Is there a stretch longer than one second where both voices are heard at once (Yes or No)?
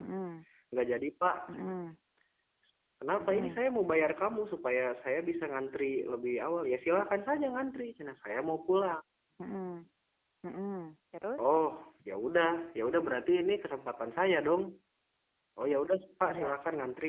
No